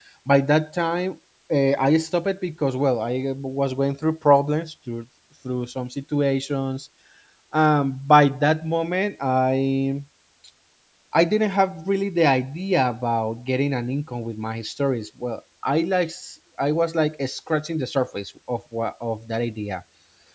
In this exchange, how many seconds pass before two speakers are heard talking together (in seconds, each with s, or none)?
none